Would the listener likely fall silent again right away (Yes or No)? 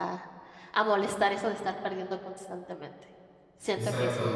Yes